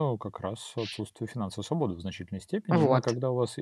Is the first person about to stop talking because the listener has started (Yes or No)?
No